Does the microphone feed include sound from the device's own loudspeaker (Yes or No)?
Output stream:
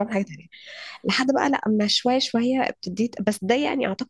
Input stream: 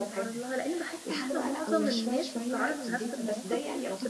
Yes